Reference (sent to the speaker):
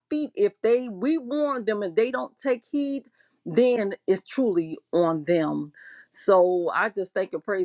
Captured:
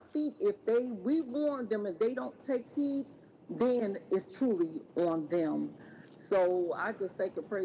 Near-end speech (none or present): none